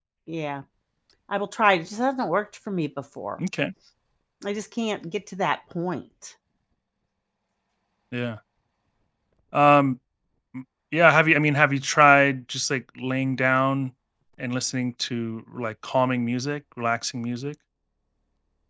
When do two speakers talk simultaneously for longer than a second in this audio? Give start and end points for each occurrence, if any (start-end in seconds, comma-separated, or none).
none